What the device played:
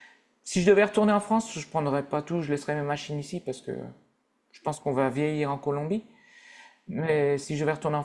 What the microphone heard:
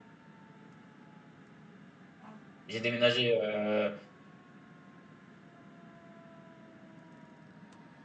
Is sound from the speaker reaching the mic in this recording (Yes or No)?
No